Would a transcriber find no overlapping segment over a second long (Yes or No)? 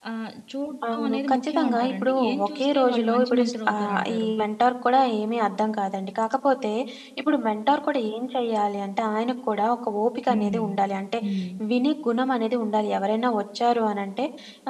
No